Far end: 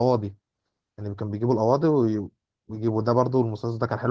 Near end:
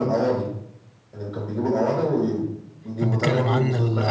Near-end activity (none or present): present